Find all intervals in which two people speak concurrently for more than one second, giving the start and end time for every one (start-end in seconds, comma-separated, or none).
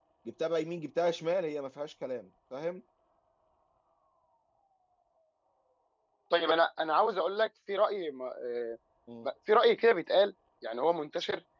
none